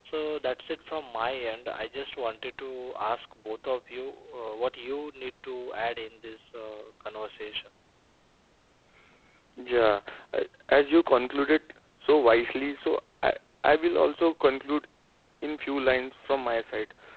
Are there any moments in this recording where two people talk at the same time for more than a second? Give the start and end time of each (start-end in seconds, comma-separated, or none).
none